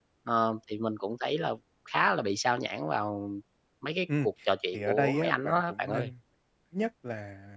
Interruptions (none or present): present